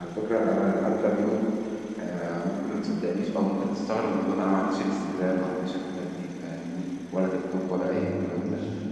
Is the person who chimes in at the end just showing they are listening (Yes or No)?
No